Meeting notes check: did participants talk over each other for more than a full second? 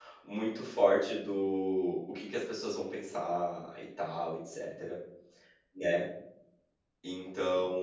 No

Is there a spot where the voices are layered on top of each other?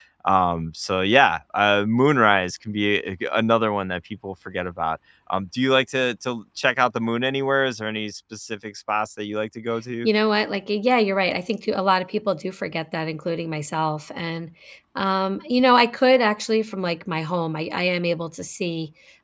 No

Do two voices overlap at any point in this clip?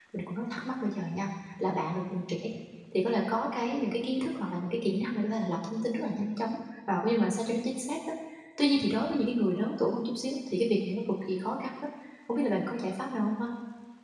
No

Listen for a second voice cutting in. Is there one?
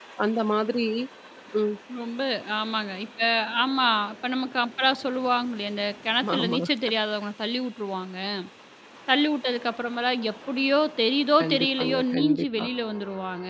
Yes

